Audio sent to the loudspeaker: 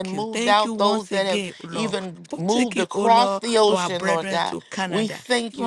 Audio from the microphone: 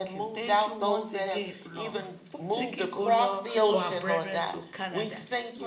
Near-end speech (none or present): none